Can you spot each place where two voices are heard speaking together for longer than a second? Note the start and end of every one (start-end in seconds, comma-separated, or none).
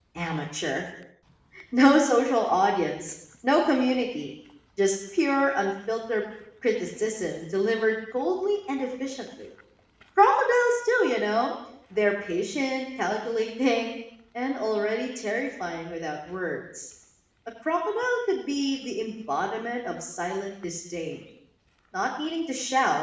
none